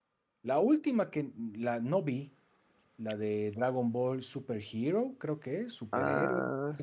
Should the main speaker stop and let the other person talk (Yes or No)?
Yes